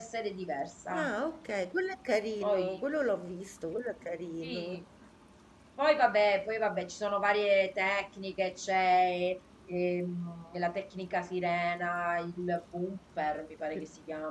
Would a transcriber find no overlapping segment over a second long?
Yes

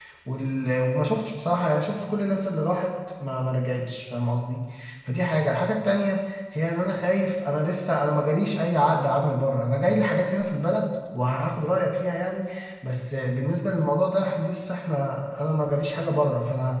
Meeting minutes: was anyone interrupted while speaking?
No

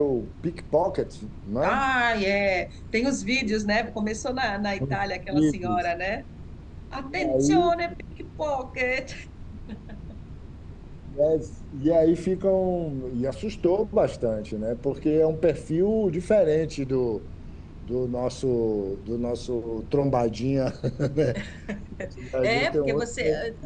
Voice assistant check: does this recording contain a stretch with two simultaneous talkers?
Yes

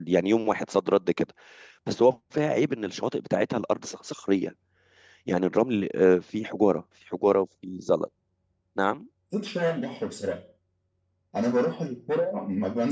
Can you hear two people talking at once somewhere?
No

